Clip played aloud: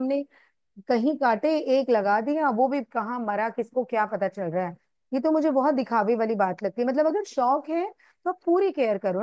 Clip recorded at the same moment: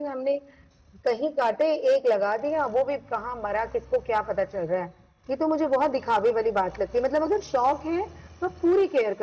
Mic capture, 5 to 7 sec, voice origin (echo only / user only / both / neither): echo only